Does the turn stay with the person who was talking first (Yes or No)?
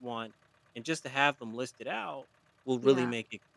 Yes